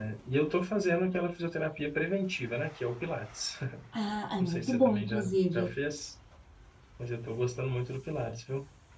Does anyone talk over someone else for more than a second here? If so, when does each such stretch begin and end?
4.4-5.7

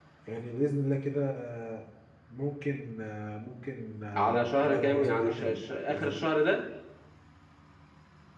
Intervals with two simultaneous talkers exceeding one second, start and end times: 4.1-6.3

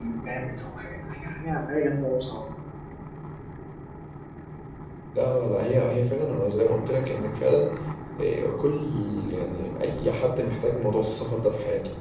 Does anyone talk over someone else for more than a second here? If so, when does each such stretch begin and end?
none

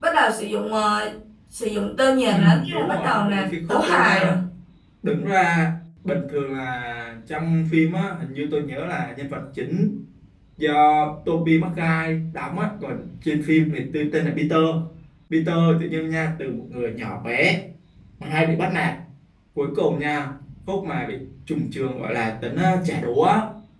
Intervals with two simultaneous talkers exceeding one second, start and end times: 2.3-4.3

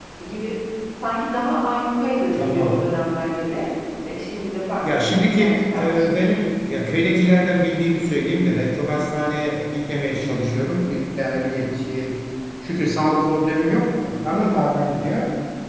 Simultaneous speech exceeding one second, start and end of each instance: 4.8-6.4

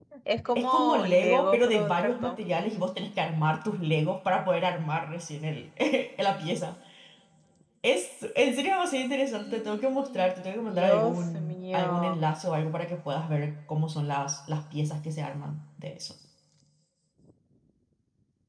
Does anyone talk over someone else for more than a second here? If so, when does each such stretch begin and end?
0.6-2.5, 9.3-12.2

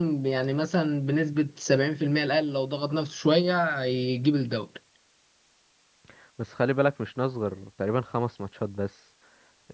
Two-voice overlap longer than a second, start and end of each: none

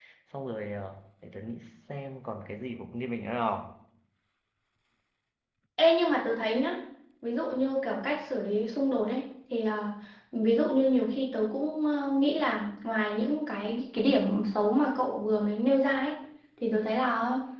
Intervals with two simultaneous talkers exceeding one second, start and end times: none

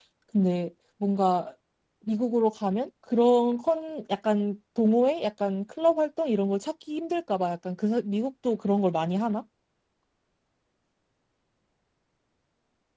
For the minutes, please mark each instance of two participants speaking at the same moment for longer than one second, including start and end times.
none

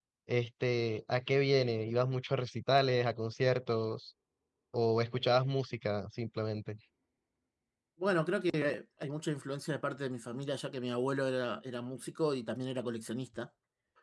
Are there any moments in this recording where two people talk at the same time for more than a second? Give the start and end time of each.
none

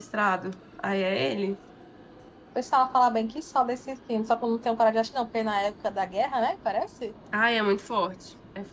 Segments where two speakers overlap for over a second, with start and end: none

